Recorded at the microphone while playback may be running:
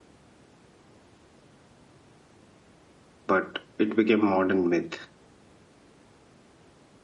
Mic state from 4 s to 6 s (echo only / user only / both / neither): user only